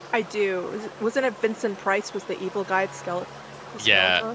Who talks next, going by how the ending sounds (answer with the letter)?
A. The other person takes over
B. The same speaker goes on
A